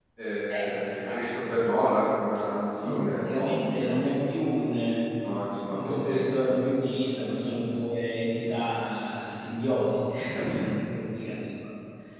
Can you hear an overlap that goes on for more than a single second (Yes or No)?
Yes